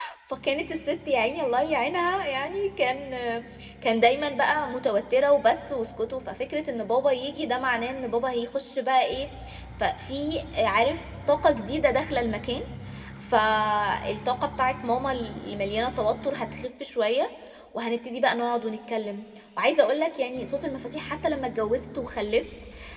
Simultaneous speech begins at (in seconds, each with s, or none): none